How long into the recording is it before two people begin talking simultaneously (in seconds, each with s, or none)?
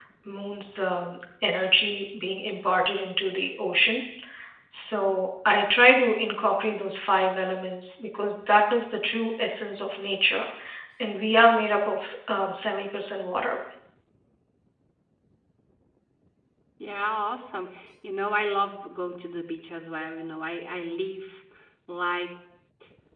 none